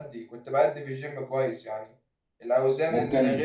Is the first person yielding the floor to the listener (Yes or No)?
No